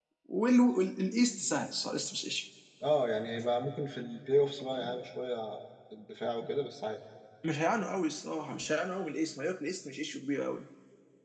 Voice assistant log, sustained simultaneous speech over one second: none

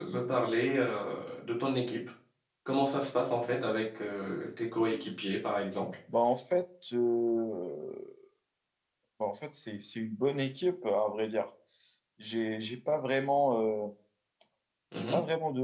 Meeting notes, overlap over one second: none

